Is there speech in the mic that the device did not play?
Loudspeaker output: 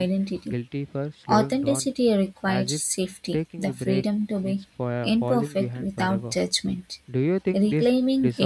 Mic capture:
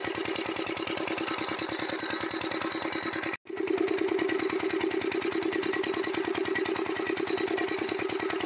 No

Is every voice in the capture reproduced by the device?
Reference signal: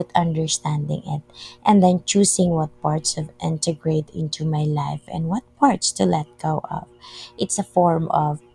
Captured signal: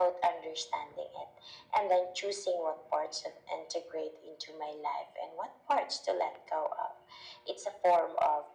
Yes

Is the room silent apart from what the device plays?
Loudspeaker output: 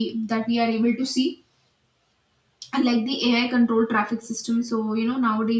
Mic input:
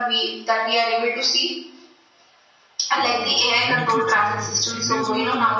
No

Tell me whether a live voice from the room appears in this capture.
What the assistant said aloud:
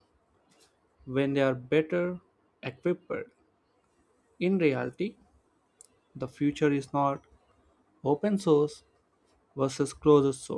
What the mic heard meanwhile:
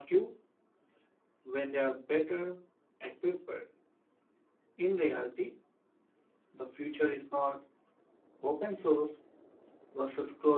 No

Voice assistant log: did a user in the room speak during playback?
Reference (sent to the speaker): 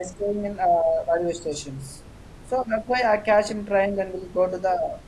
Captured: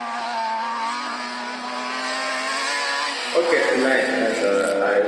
Yes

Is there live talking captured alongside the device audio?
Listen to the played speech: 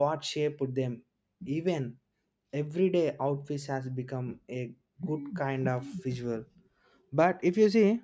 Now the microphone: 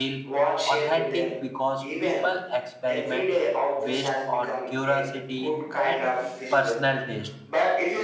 Yes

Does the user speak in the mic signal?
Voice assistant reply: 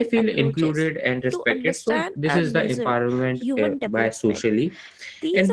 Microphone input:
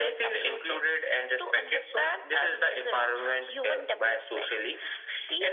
No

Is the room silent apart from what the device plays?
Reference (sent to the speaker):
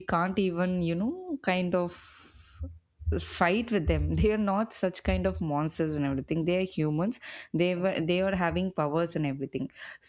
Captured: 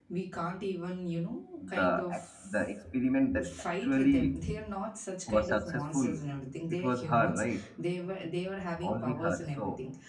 No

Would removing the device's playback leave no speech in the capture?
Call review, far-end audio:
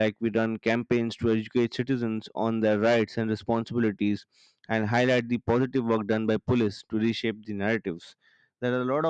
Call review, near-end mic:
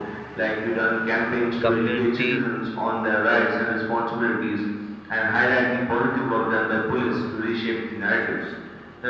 No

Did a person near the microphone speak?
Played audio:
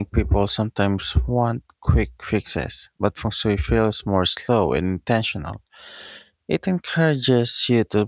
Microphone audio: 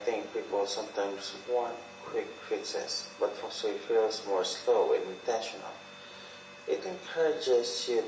No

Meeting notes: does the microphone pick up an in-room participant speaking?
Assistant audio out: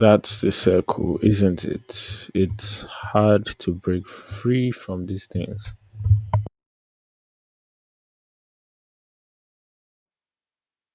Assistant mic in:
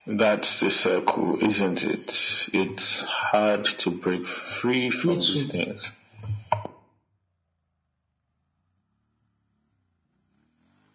Yes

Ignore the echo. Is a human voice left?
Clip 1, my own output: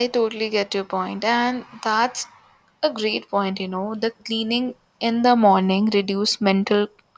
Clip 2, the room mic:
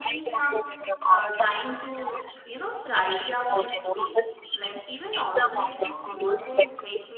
Yes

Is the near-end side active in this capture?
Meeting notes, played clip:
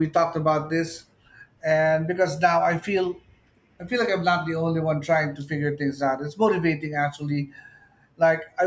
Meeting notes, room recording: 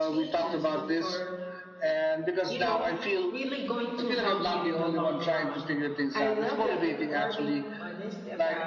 Yes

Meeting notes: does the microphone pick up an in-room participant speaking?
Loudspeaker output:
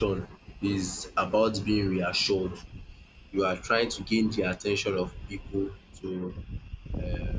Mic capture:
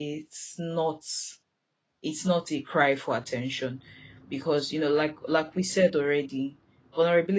Yes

